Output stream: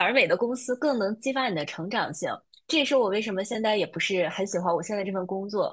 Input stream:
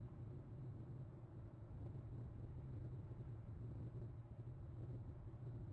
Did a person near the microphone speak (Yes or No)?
No